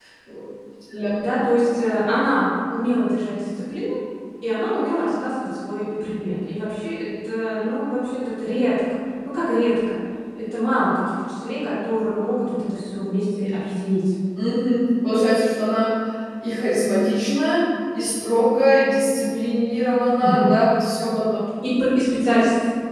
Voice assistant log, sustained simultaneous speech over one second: none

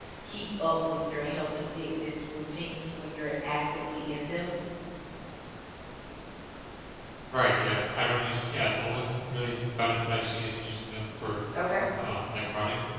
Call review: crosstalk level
none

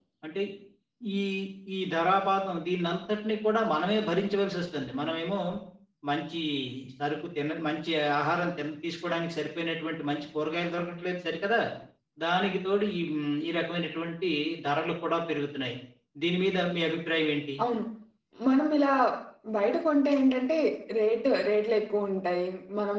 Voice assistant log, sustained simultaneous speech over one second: none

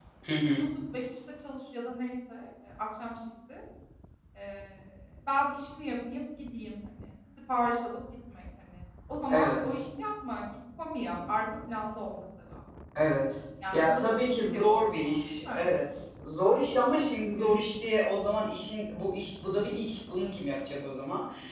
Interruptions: present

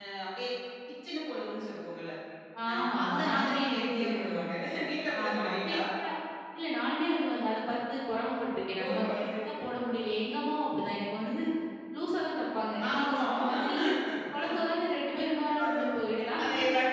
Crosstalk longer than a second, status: present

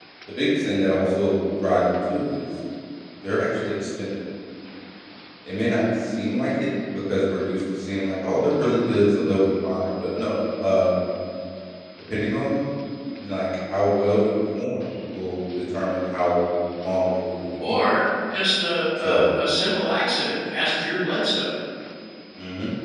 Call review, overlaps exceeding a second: none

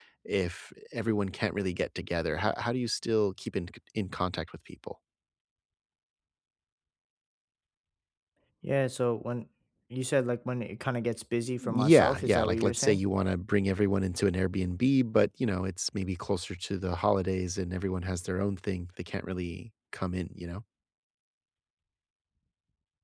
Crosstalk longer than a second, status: present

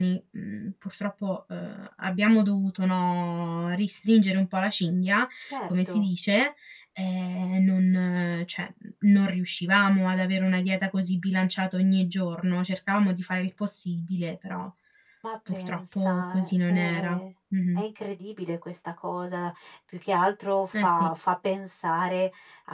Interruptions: present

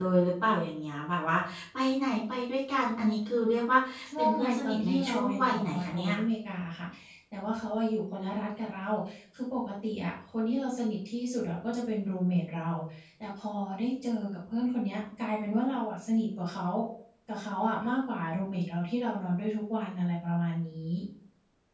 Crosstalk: present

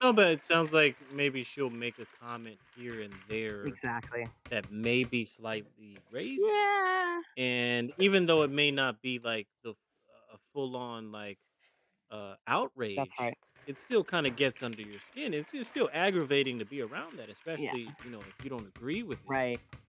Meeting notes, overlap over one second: none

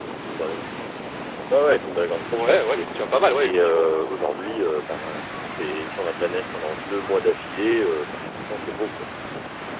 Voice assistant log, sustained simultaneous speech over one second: none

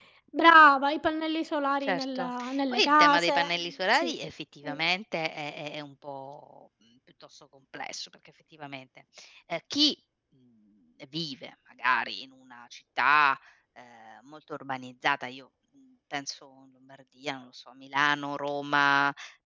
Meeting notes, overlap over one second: present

